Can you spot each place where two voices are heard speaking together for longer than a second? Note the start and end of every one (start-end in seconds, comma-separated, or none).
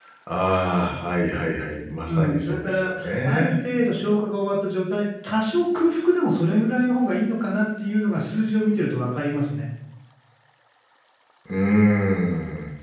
2.1-3.5